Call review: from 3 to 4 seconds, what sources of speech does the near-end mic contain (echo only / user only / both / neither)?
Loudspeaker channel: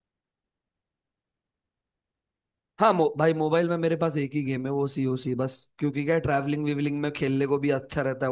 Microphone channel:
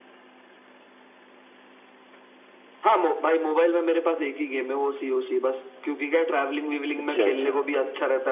echo only